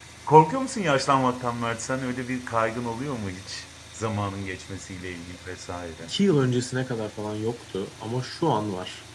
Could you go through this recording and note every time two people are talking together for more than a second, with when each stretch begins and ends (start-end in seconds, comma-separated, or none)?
none